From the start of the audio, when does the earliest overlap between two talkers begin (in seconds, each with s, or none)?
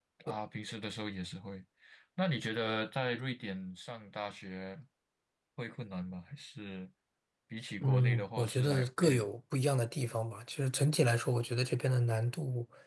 7.8 s